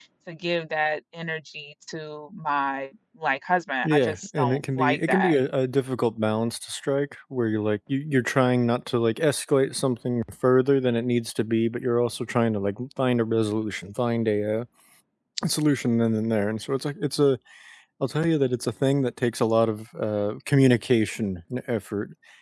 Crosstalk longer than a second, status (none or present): present